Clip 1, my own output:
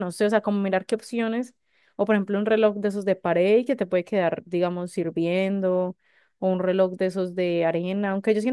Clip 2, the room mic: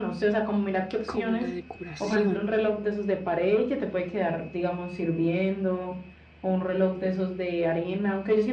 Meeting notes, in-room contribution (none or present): present